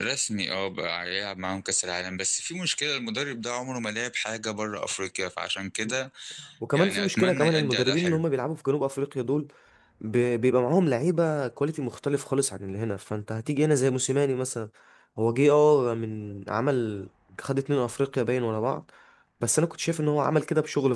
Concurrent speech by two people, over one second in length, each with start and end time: 6.7-8.2

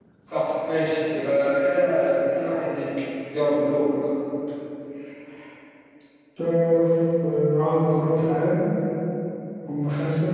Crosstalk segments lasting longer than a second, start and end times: none

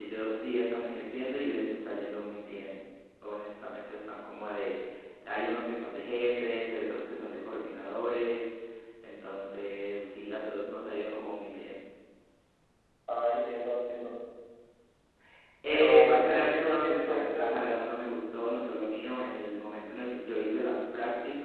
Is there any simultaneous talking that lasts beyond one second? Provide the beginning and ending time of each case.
15.7-17.5

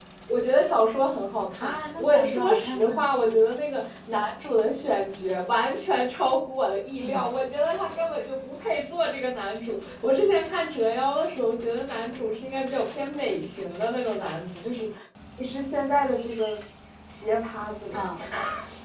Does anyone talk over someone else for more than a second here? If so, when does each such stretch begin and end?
1.6-3.0

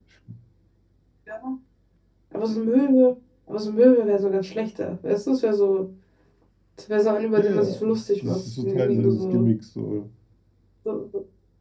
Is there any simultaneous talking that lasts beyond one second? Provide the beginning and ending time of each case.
7.4-9.5

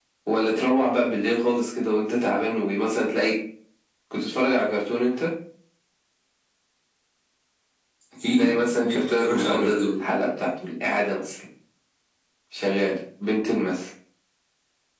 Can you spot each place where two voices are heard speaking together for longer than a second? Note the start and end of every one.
8.4-9.9

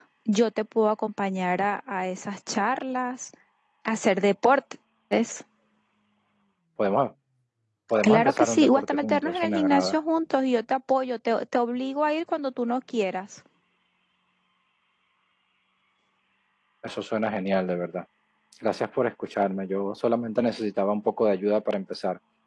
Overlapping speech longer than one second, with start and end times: 8.0-10.0

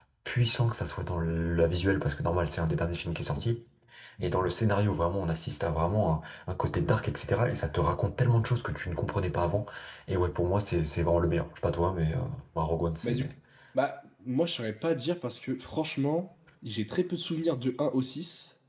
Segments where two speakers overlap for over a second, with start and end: none

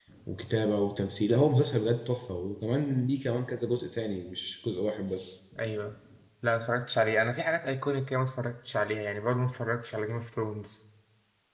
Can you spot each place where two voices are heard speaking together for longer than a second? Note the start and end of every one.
none

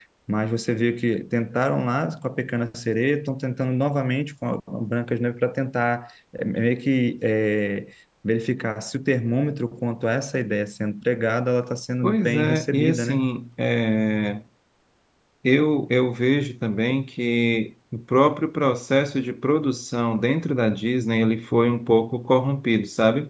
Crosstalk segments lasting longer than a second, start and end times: 12.0-13.2

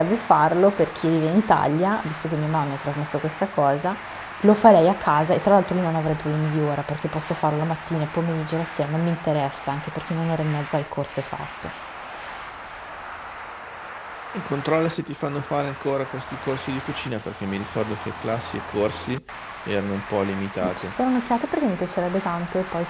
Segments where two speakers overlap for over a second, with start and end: none

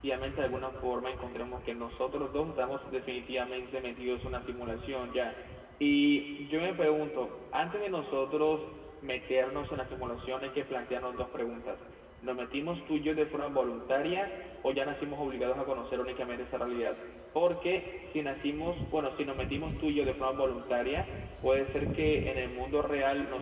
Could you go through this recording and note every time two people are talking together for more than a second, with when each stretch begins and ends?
none

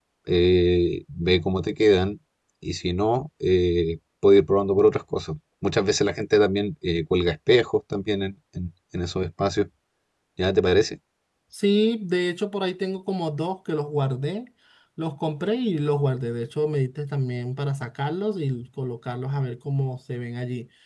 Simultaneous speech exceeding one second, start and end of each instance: none

